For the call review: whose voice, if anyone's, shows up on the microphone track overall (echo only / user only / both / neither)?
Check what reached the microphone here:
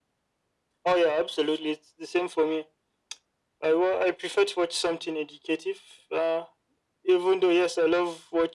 echo only